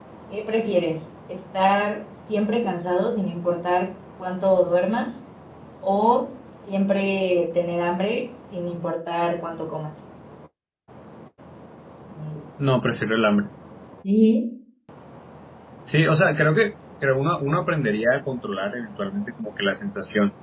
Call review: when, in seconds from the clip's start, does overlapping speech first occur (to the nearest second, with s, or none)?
none